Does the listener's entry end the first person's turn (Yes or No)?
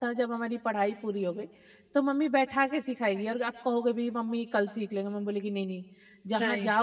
Yes